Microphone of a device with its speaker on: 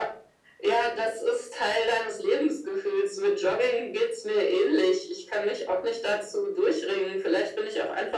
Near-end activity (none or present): none